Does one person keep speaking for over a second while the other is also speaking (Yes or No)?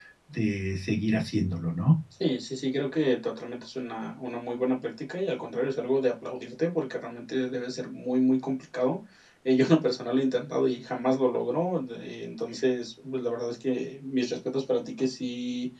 No